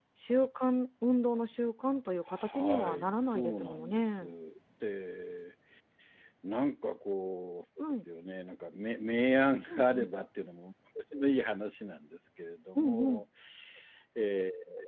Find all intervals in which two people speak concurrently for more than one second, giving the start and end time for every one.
2.5-4.2

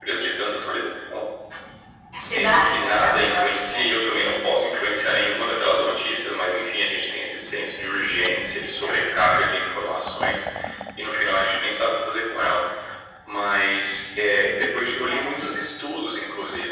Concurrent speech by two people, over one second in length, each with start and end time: 2.3-3.8

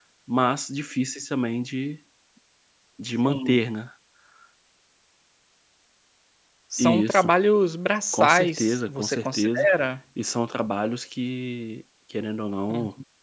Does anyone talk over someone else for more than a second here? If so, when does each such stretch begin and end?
8.1-9.7

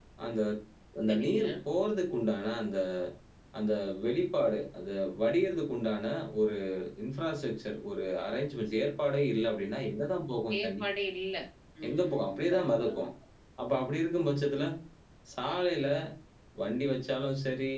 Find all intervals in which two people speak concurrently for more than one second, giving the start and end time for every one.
11.9-13.1

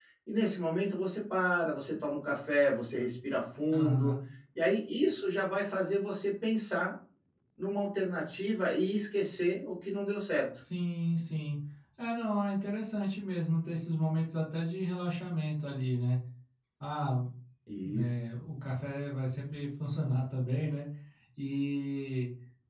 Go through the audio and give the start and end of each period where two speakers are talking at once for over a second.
none

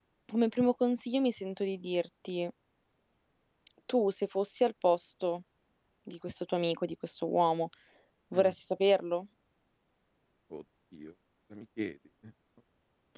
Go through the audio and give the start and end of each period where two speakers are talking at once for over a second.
none

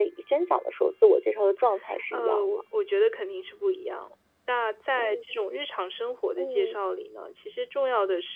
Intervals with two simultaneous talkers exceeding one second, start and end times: none

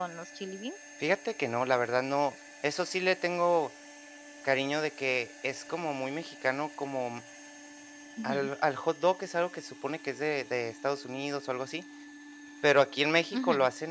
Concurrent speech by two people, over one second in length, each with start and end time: none

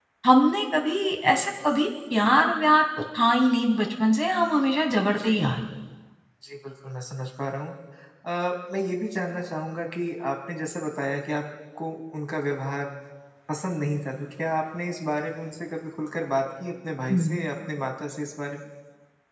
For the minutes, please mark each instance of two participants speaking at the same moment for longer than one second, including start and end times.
none

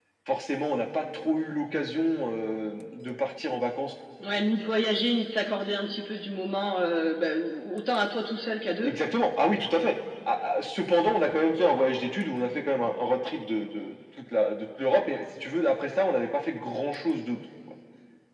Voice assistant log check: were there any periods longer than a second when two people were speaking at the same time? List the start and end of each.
none

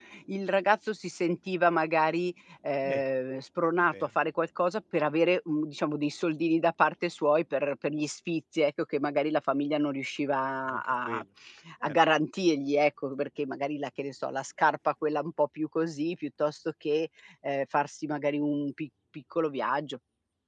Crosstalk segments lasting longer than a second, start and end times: none

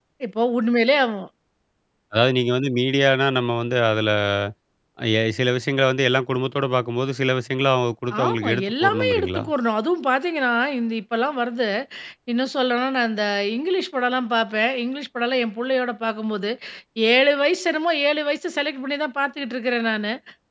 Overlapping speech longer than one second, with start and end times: 8.2-9.4

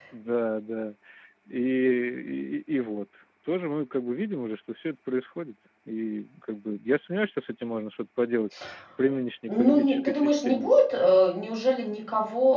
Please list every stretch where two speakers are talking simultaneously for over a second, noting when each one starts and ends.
9.5-10.7

